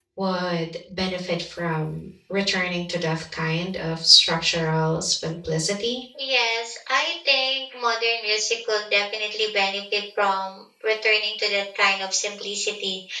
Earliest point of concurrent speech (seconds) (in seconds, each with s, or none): none